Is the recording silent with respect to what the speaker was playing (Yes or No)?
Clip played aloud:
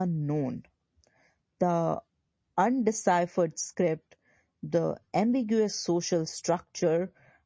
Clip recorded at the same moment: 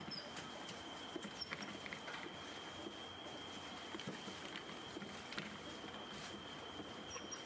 Yes